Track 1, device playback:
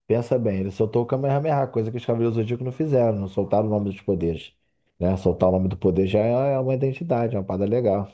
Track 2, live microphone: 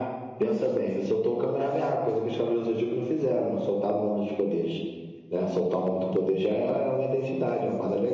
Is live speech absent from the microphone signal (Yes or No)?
No